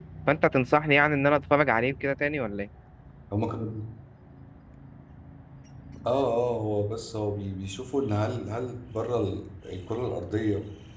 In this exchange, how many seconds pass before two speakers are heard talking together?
none

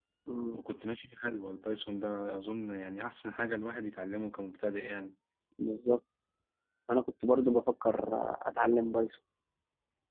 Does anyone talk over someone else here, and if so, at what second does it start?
none

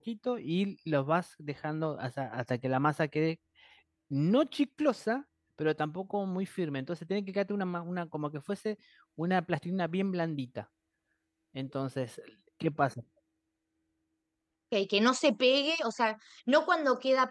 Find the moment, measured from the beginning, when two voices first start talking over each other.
none

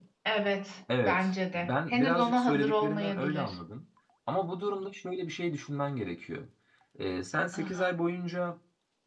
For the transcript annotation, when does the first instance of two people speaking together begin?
1.0 s

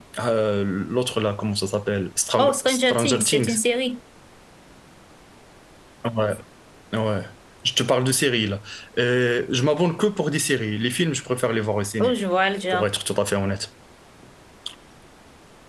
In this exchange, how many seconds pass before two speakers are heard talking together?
2.4 s

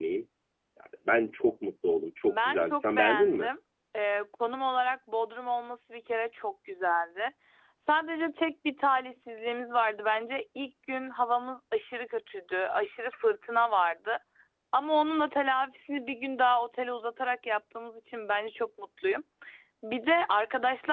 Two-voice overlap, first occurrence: 2.3 s

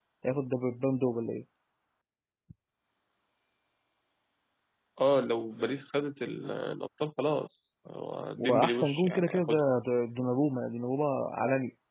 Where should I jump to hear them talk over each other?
8.4 s

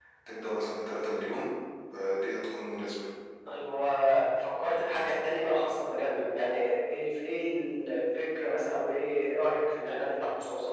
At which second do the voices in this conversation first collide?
none

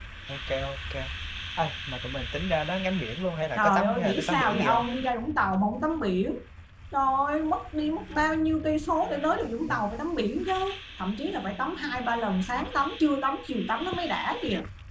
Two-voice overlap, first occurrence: 3.6 s

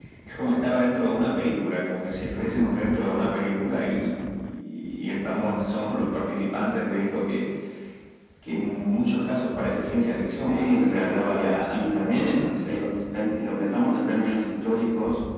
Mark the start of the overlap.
10.5 s

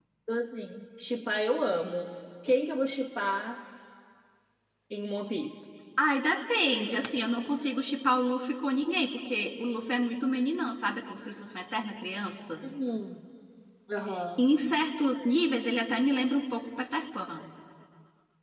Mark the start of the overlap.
none

